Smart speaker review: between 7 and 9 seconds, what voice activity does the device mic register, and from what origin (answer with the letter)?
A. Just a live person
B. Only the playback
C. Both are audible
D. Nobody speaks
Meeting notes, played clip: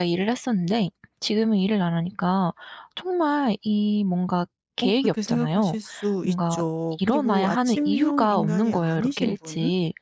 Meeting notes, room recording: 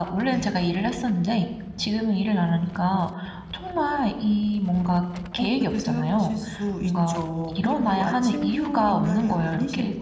B